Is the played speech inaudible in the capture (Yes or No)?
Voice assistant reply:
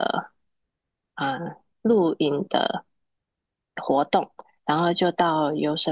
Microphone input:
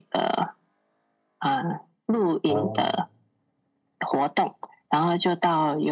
No